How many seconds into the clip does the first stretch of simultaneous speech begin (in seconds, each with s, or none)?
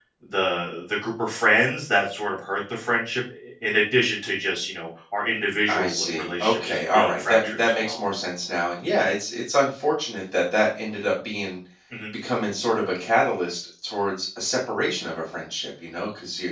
5.7 s